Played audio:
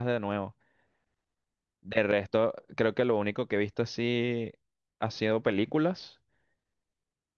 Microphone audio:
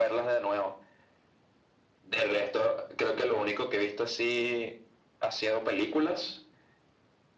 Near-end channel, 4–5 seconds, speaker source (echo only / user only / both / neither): echo only